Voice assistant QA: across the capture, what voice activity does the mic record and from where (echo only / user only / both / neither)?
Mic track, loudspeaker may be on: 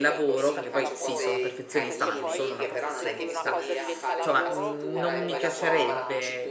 both